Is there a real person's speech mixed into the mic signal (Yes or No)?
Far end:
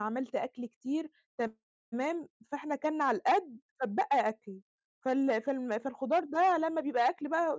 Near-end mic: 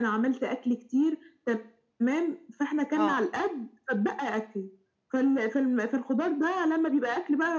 Yes